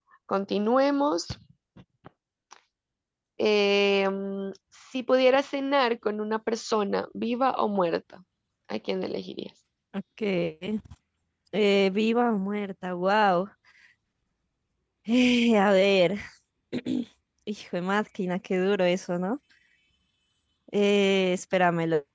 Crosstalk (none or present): none